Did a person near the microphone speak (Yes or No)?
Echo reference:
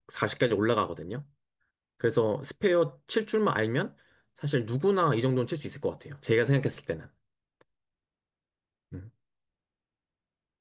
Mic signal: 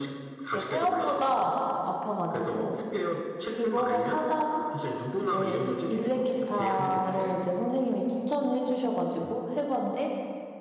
Yes